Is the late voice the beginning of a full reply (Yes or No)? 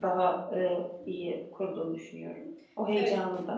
Yes